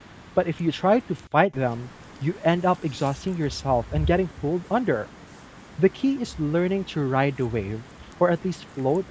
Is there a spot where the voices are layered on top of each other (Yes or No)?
No